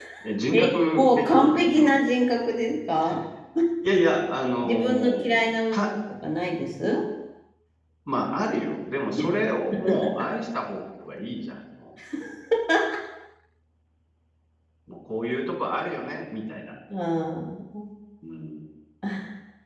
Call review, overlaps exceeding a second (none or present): present